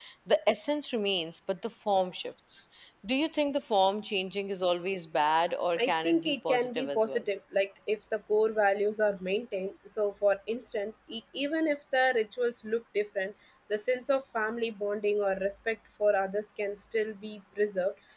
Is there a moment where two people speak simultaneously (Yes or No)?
Yes